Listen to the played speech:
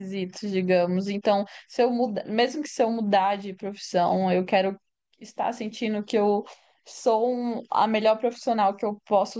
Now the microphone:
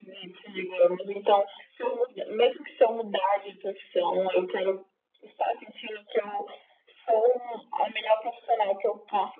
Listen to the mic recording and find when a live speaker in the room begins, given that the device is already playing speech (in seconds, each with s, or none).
none